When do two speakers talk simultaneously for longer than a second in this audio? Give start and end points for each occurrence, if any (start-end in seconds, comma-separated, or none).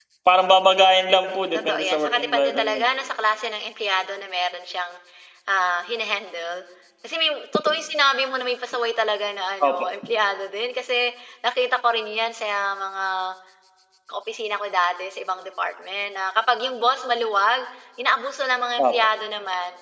1.5-2.9